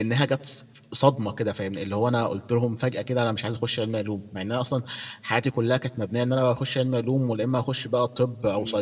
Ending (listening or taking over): taking over